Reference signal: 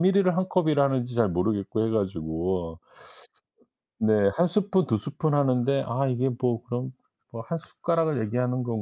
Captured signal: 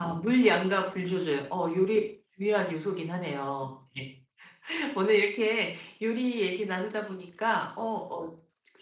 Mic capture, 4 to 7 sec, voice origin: user only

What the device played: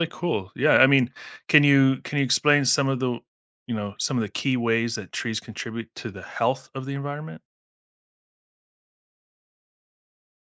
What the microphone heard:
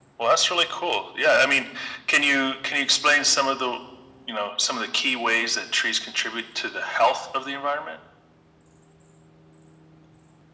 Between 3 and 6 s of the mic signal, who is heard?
echo only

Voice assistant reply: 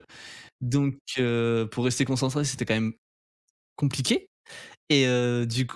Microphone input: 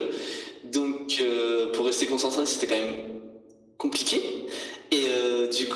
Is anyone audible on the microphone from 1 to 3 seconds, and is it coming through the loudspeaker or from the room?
echo only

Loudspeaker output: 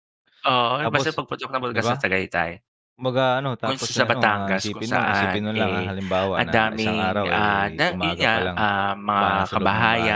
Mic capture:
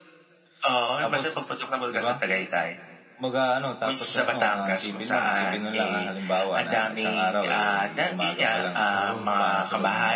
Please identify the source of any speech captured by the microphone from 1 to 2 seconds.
echo only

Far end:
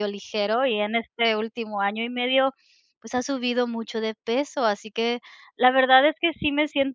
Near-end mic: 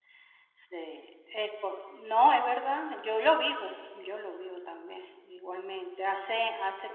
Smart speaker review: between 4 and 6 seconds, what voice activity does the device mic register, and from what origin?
user only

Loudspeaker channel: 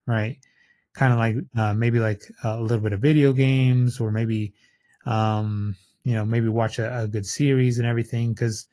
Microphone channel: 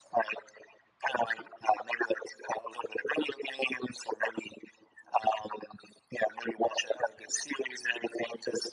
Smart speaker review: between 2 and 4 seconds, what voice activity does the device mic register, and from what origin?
echo only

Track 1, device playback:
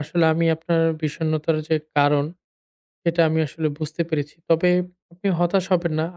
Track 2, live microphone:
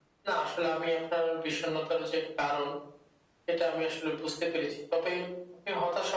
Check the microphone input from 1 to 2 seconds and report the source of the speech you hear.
echo only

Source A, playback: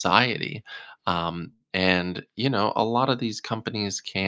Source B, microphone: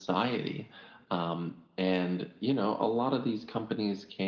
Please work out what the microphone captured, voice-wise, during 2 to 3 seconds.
echo only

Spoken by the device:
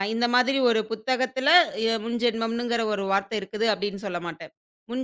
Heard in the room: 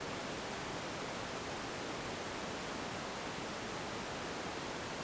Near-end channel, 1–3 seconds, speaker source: neither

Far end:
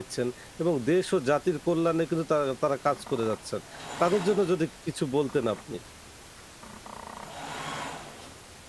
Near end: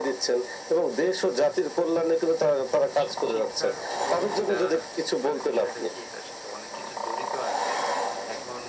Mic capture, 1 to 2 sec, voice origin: echo only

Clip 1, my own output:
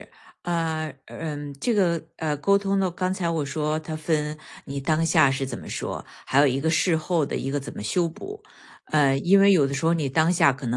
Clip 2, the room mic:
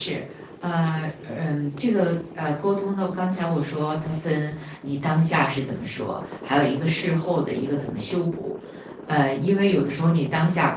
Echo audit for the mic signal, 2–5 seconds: echo only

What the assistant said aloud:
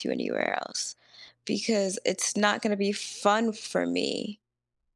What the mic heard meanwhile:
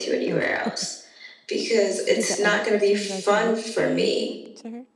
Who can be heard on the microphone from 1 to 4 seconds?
both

